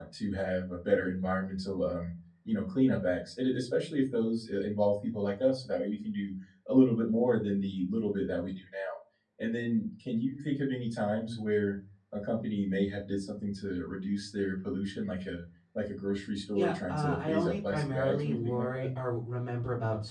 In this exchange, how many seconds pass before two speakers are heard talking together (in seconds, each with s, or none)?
16.6 s